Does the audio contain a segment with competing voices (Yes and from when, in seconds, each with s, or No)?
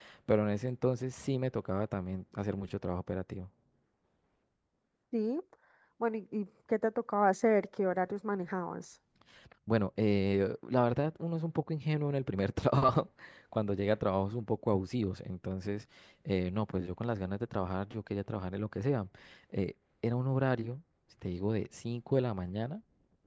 No